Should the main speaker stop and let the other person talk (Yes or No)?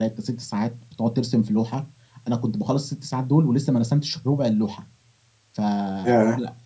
No